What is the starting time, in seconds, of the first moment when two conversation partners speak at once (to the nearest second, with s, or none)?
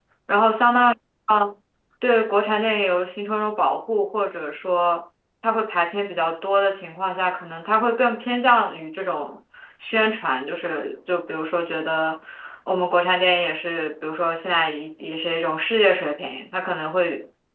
none